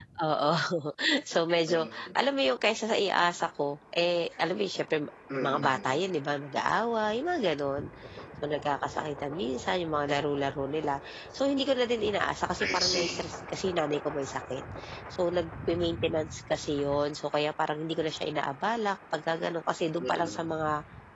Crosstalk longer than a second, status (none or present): none